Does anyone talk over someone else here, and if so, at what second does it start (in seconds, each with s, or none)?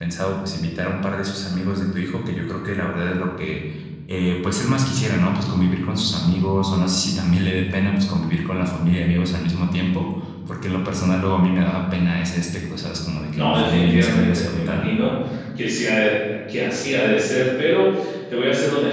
13.3 s